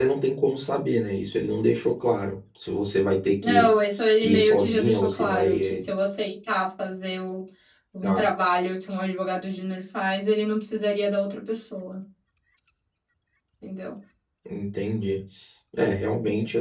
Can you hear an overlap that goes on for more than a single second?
Yes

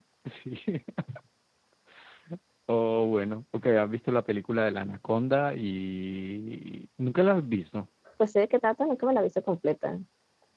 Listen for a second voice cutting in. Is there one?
No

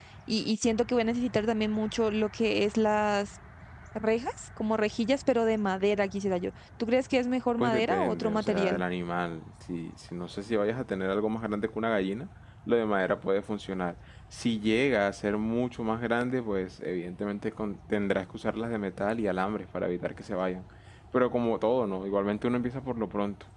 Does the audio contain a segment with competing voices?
Yes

